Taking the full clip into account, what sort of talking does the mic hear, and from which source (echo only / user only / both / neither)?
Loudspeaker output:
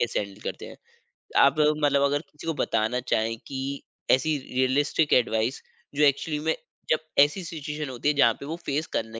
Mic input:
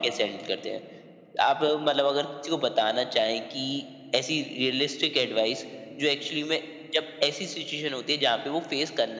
echo only